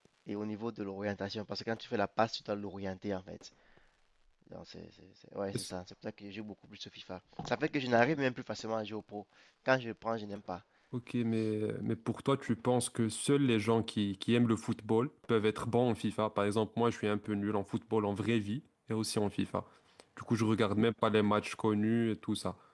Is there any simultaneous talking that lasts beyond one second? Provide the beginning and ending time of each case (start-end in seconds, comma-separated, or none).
none